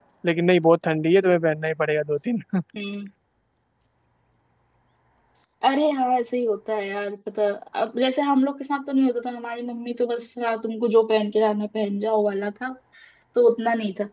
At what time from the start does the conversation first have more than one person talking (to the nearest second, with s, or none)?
none